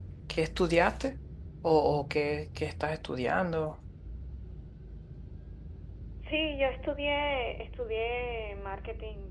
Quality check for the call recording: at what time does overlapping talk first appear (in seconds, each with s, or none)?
none